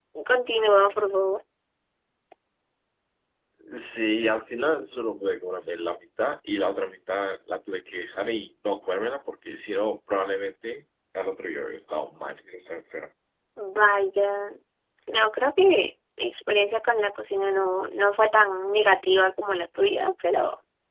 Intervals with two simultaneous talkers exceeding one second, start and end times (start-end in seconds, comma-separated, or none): none